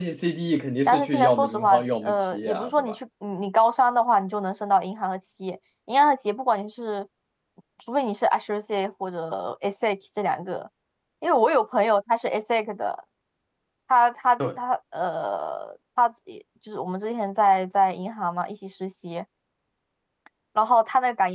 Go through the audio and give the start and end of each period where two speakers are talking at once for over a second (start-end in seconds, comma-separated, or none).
0.8-3.0